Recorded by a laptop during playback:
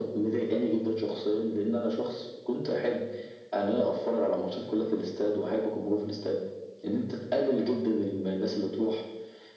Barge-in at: none

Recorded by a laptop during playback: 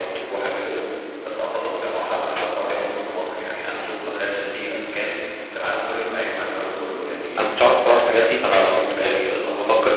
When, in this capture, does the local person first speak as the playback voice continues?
7.4 s

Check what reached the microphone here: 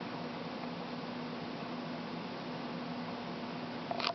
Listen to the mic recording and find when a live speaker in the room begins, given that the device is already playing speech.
none

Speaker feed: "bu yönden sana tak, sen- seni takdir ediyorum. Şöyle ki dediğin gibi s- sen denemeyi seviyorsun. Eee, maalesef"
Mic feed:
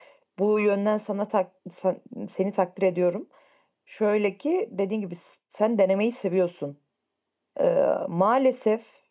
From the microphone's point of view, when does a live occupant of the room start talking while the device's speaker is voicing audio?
none

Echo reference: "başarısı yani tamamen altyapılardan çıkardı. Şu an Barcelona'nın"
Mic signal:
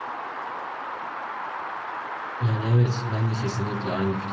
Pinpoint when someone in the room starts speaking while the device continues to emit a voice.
2.4 s

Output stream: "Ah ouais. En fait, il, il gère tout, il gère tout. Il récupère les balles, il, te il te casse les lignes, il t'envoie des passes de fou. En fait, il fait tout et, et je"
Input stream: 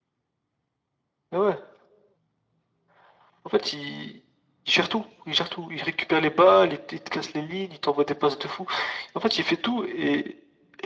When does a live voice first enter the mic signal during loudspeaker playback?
none

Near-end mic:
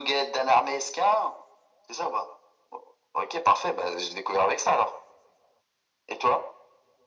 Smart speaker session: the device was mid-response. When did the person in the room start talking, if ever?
none

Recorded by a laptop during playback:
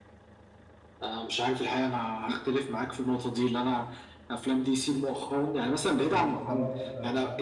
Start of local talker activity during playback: 6.0 s

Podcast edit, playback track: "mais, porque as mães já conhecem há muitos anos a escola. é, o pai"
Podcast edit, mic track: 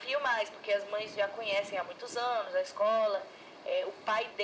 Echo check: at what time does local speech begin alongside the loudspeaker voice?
none

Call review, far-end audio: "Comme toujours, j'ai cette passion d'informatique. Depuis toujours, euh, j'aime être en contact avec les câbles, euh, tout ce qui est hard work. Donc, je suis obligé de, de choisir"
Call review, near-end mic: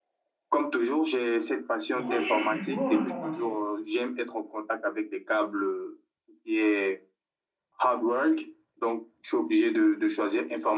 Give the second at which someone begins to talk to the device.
1.9 s

